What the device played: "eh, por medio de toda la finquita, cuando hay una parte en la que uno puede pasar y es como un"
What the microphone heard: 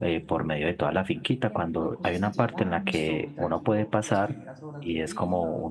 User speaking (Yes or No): Yes